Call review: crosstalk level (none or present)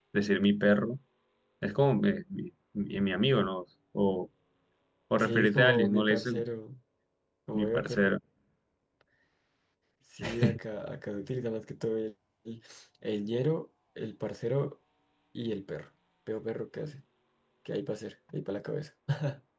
present